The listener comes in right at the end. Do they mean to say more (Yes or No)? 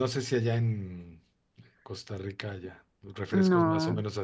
No